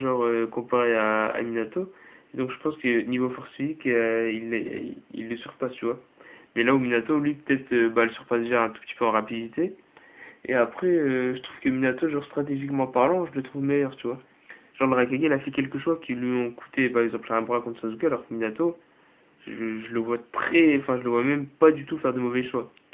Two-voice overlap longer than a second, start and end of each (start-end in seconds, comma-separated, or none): none